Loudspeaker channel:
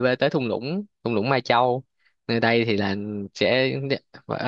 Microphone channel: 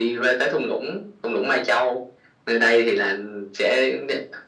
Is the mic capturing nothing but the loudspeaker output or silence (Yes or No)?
Yes